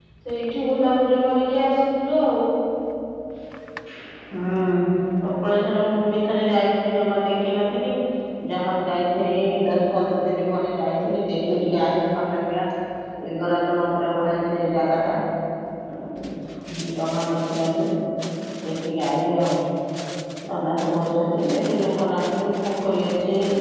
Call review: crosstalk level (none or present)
none